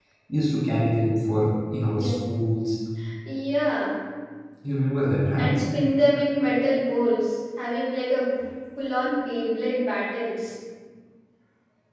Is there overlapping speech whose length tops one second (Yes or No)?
No